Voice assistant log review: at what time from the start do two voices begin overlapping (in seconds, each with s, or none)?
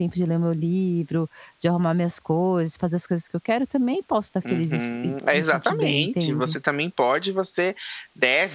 4.4 s